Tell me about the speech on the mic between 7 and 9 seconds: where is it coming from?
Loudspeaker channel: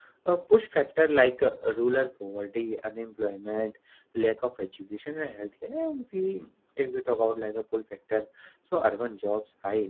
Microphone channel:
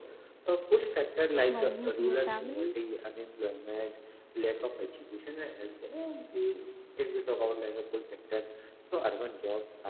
echo only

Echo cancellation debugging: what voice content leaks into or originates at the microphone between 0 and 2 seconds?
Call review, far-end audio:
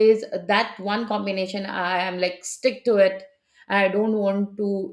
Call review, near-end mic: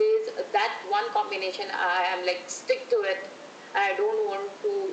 echo only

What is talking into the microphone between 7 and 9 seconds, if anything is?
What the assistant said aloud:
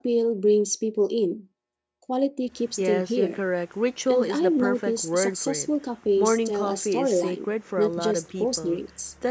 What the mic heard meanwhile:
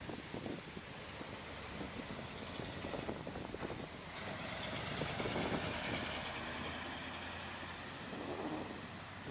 neither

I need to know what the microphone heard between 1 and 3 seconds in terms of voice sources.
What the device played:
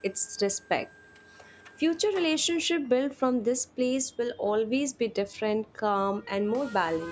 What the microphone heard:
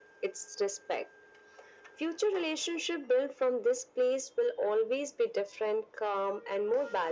echo only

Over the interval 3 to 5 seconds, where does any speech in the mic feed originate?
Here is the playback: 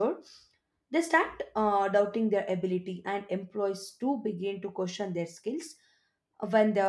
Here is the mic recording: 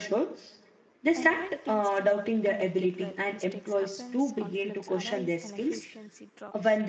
both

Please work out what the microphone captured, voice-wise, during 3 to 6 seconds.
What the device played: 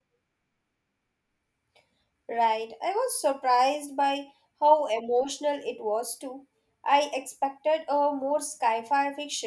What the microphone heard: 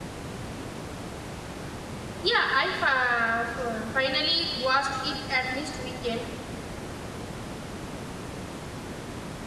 user only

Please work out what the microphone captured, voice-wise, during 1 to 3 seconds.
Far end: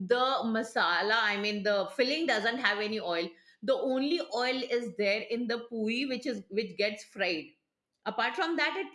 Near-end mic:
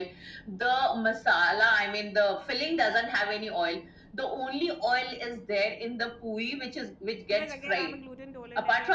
echo only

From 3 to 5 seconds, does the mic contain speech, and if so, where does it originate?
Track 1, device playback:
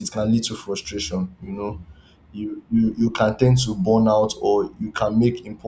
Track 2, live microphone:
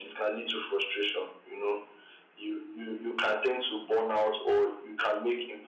echo only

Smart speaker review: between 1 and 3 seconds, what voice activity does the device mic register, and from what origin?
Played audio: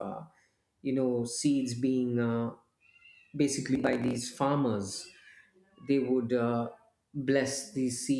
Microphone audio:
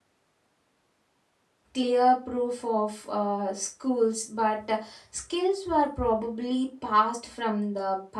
user only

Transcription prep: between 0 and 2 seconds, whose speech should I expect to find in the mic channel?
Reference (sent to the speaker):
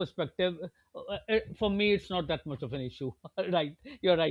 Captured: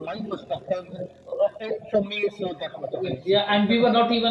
echo only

